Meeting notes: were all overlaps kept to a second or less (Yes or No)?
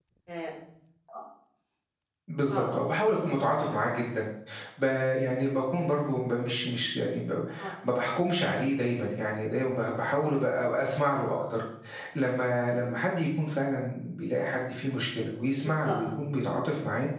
Yes